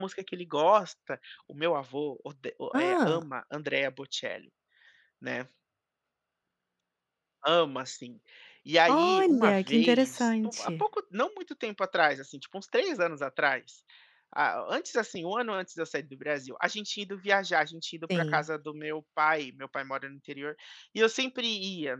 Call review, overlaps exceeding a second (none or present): present